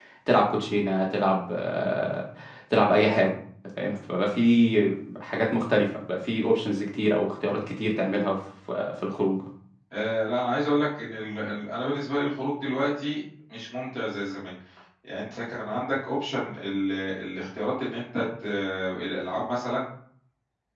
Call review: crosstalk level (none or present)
none